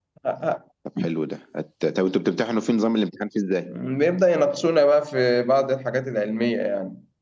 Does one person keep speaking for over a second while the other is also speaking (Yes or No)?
No